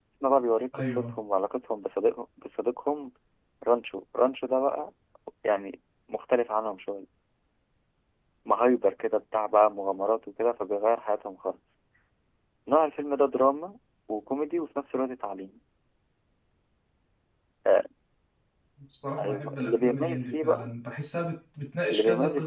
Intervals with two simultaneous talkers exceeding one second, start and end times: 19.2-20.7

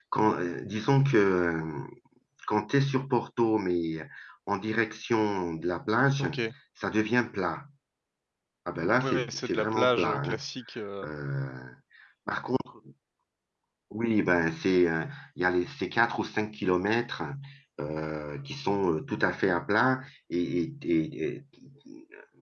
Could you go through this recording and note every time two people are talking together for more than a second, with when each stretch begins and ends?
9.0-10.4

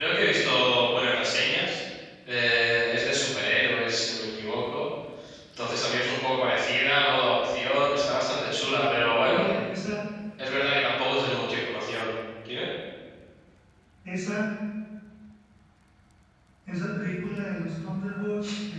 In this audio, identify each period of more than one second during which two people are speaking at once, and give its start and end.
none

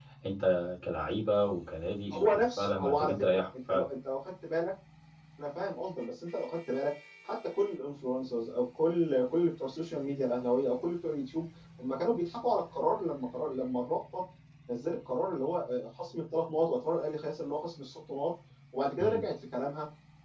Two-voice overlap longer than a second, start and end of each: 2.1-3.9

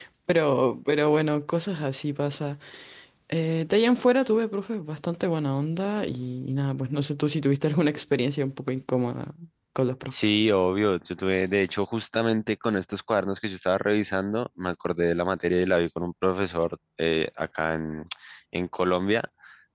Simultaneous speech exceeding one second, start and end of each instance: none

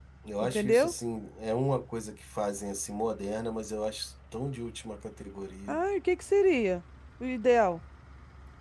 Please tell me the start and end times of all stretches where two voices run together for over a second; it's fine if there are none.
none

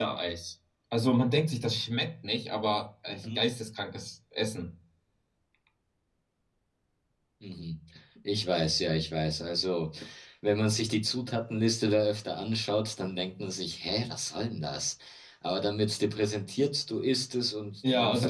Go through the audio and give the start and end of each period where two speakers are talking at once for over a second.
none

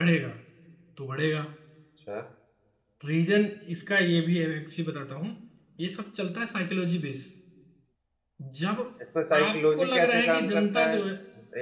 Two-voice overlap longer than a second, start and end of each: 9.4-11.0

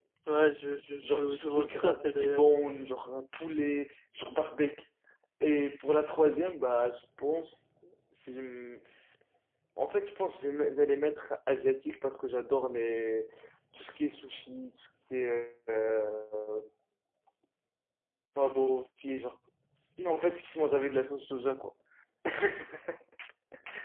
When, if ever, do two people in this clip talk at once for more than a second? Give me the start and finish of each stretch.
1.0-2.4

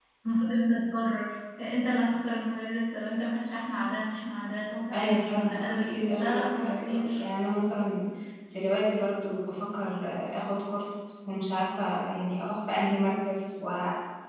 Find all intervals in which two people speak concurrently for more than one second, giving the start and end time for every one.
4.9-7.2

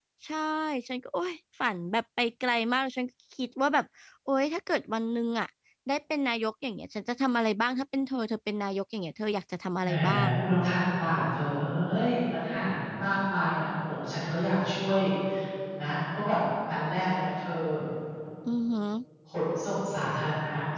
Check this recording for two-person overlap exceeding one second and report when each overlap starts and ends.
none

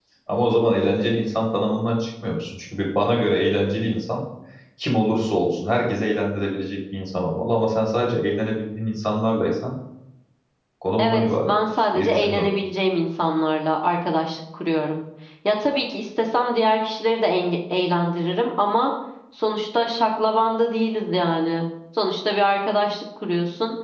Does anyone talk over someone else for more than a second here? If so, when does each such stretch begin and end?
11.0-12.5

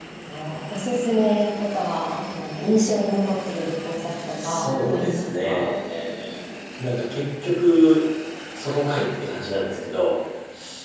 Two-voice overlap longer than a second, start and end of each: 4.4-5.7

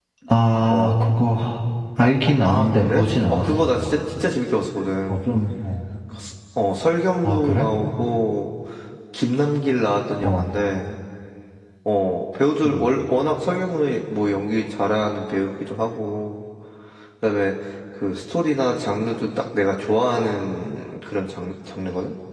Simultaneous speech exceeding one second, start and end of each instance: 2.4-3.7

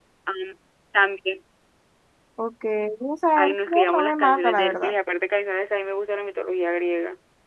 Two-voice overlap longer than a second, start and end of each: 3.4-4.9

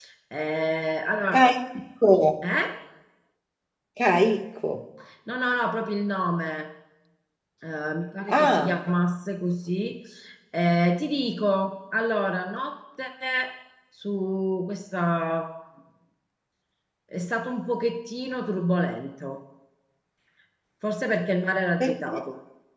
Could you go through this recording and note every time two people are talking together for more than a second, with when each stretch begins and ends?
none

